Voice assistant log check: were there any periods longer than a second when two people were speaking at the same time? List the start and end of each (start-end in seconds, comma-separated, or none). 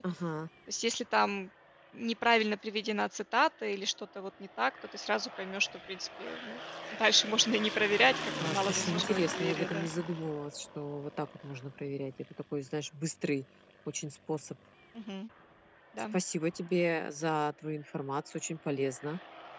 8.4-9.9